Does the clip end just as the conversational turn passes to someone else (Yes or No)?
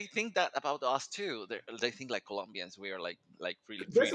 Yes